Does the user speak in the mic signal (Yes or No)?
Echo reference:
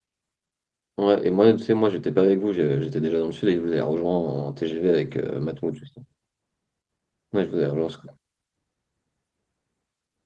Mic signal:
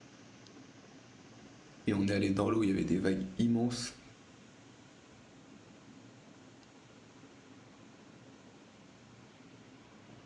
Yes